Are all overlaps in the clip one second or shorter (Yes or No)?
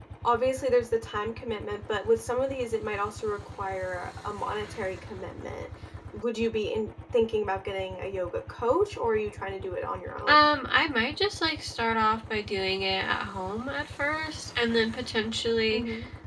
Yes